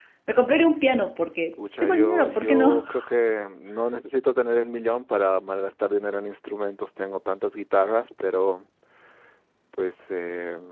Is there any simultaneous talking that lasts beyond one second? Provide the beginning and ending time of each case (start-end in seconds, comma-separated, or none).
1.5-2.8